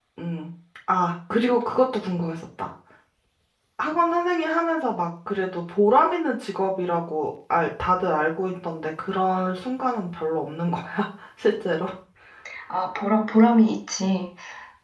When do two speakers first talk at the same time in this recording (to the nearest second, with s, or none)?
none